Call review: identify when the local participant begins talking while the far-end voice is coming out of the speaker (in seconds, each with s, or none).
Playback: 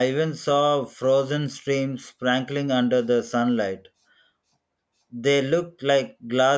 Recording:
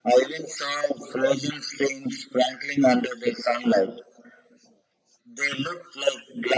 none